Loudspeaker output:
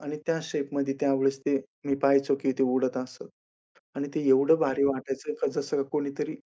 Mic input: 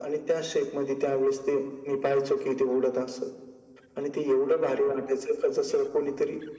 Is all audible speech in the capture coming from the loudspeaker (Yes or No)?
Yes